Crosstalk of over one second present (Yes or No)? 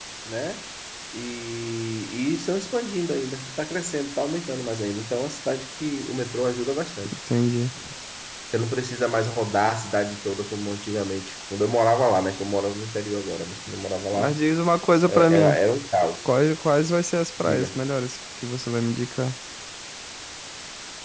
No